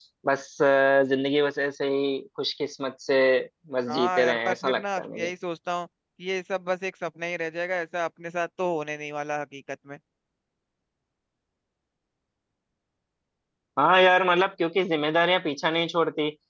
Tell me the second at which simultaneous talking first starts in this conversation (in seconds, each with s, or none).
3.9 s